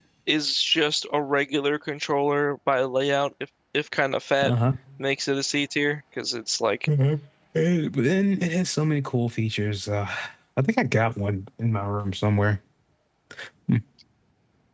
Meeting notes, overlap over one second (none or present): none